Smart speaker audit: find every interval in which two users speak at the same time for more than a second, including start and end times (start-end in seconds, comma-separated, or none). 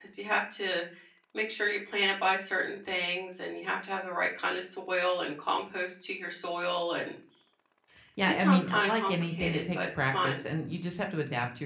8.3-10.4